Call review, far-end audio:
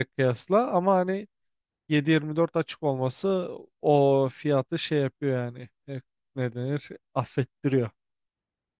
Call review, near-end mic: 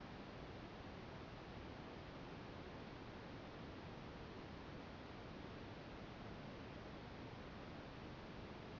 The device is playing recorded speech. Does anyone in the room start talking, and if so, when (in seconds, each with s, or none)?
none